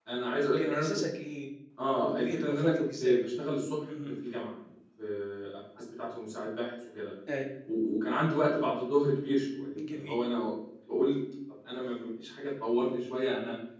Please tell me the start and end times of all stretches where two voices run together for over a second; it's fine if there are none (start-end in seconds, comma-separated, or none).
1.9-3.2